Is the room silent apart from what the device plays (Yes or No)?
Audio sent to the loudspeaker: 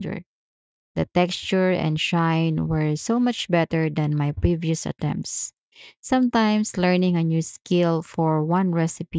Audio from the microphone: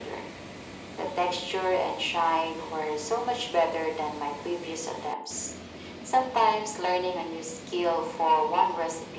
Yes